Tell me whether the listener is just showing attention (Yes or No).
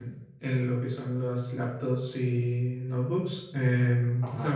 Yes